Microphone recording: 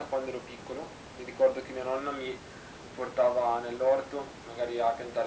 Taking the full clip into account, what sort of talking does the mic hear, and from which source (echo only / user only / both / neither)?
echo only